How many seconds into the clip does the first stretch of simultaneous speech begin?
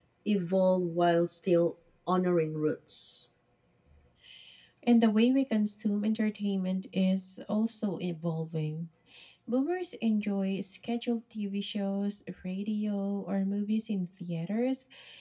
none

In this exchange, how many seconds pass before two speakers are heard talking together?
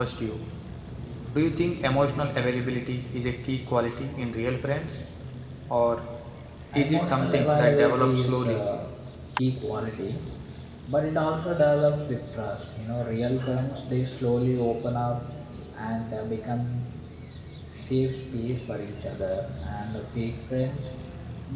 6.7 s

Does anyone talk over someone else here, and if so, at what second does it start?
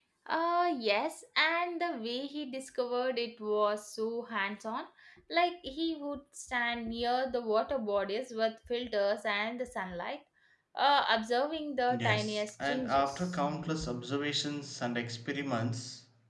11.9 s

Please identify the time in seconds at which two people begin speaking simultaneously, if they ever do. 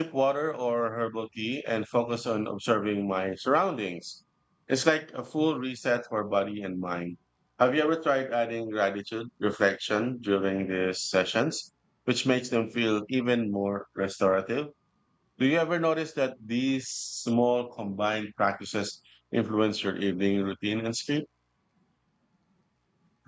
none

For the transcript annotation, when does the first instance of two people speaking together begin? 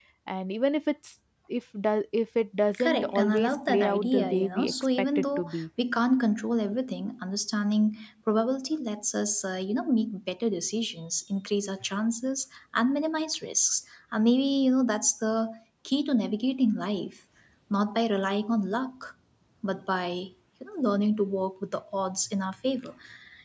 2.7 s

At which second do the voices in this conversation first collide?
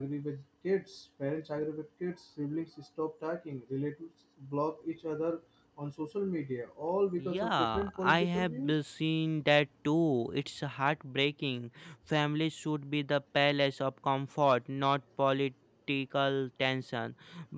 7.2 s

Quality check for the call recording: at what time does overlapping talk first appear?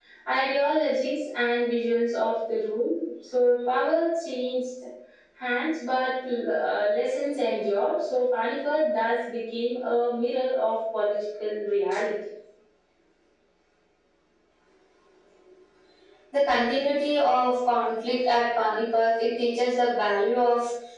none

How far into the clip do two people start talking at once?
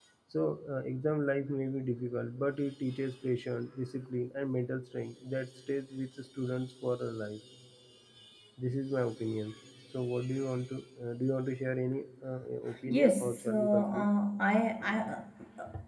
12.9 s

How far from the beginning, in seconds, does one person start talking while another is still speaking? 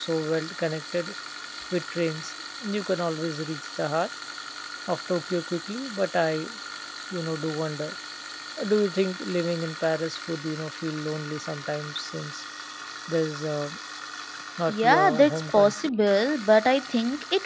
14.7 s

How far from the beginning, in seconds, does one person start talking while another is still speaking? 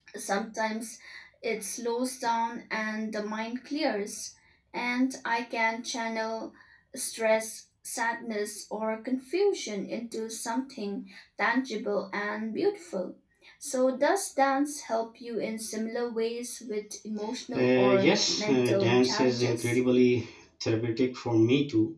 17.5 s

